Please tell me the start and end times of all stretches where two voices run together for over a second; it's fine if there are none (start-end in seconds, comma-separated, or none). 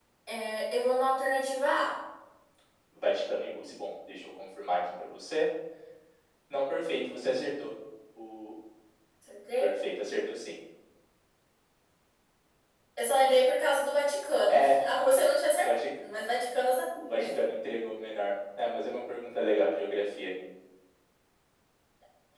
none